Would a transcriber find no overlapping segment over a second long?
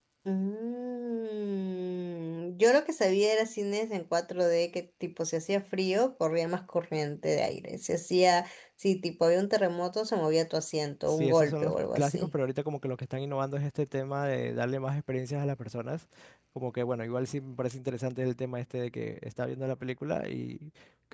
No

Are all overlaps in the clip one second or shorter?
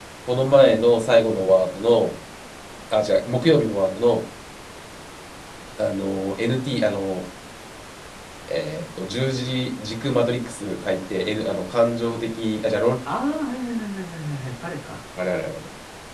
Yes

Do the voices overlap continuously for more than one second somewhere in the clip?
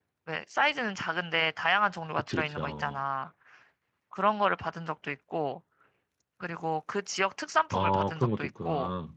Yes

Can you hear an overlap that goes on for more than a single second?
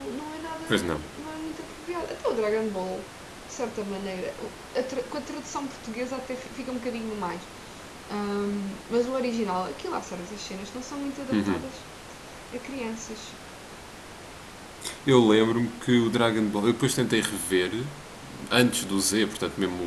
No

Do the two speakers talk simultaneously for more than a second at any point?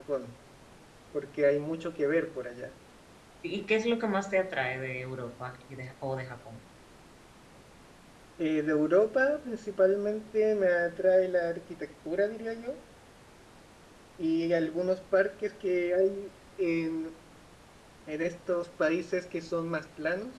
No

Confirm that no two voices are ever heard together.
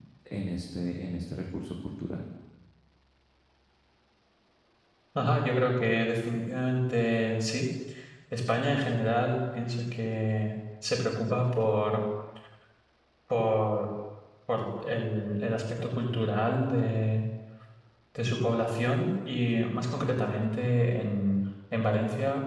Yes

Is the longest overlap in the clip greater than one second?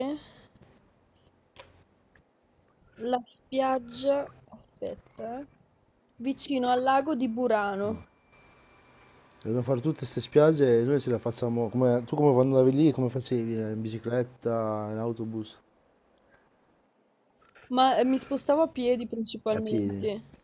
No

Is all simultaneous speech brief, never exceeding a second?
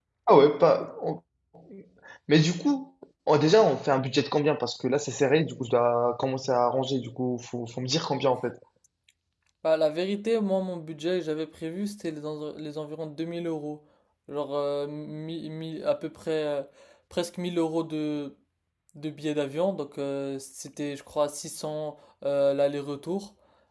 Yes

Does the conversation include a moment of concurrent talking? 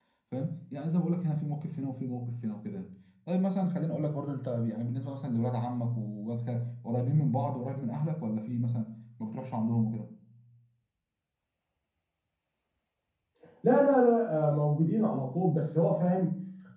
No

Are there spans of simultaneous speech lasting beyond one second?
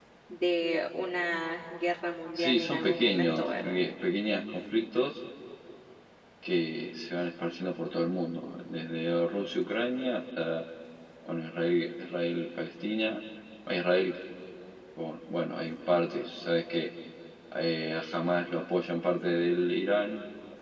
Yes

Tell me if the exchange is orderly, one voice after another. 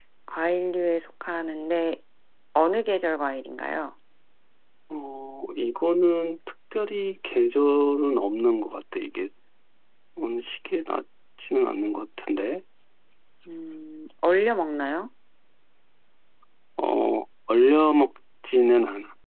Yes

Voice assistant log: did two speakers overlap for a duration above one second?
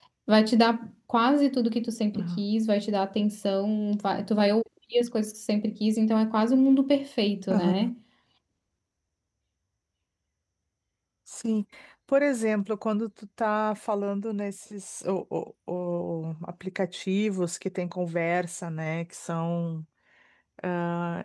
No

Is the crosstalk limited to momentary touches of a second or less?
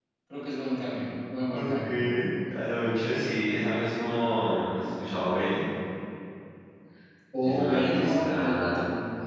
No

